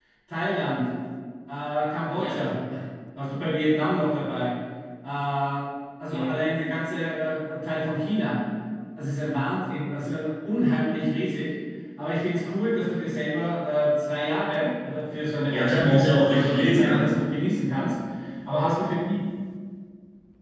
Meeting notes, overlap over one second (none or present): present